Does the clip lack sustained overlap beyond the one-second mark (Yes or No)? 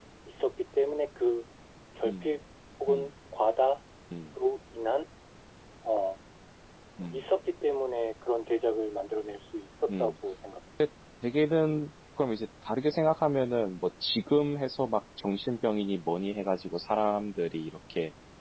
Yes